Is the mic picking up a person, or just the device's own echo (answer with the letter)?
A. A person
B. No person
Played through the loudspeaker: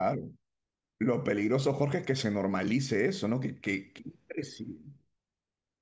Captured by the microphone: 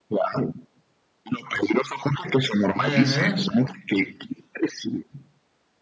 A